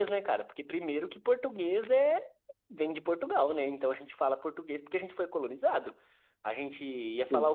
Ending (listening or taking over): listening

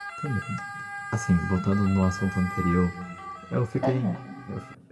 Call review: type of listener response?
listening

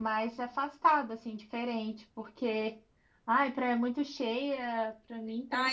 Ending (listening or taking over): taking over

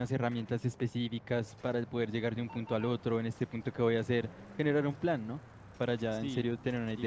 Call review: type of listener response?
taking over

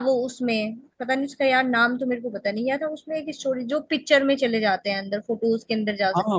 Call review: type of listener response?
taking over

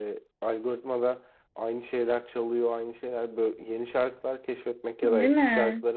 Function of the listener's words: listening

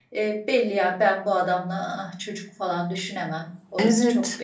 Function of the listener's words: taking over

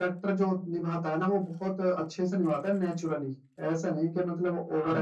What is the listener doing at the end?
taking over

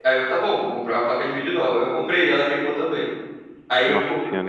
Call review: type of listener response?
listening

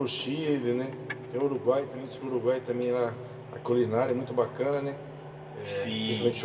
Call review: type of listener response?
taking over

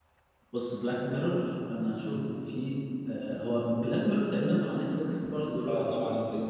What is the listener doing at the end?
taking over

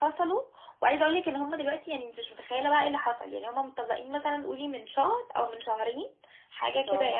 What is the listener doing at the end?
listening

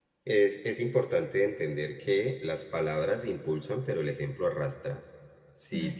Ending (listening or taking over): listening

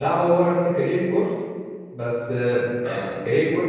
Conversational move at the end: listening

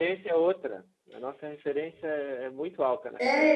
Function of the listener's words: taking over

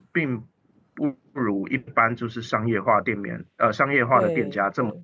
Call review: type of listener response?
listening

